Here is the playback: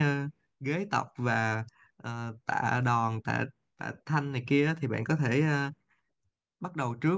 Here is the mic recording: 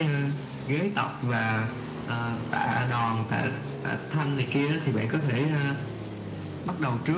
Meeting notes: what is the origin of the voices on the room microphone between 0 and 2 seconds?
echo only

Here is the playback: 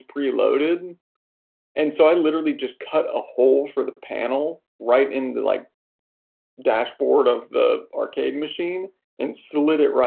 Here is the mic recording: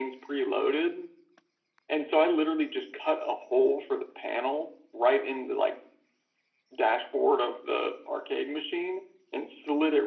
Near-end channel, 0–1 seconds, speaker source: echo only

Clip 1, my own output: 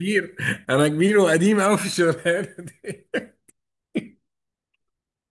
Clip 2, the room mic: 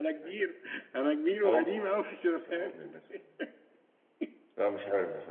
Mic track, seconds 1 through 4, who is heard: both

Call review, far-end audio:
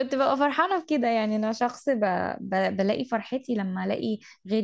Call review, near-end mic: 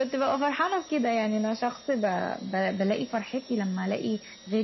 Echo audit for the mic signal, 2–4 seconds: echo only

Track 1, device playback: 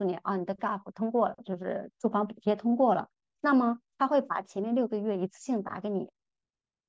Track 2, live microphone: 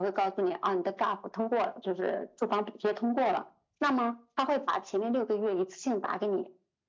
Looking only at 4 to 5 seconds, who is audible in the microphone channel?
echo only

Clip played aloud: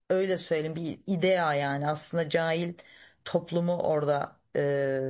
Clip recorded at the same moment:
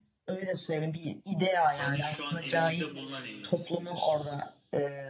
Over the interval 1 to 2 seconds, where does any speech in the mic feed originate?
both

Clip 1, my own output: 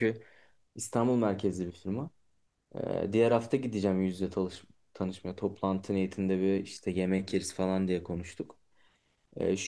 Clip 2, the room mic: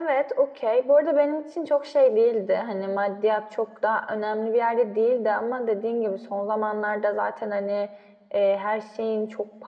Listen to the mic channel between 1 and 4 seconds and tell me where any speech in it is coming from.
user only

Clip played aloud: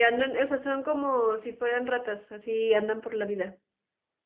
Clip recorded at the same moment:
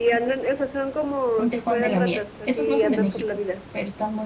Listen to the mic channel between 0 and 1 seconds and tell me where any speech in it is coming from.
echo only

